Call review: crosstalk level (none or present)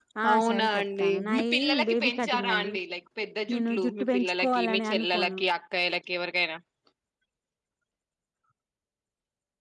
present